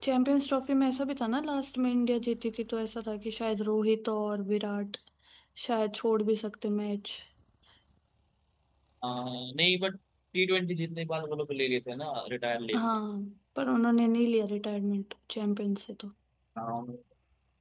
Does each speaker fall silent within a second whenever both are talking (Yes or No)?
Yes